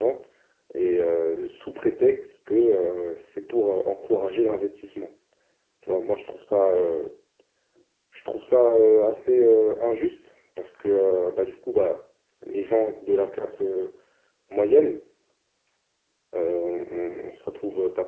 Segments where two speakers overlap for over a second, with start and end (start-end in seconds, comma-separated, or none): none